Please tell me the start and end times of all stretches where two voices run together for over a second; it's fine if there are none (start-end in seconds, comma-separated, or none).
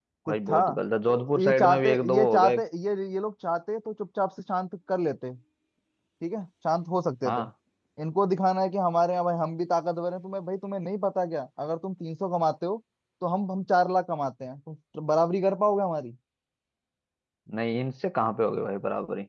1.1-2.6